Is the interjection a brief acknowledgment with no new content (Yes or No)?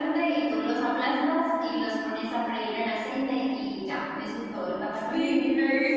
No